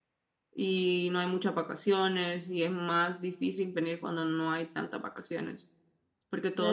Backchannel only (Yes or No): No